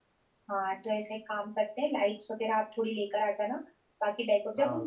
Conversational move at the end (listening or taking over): listening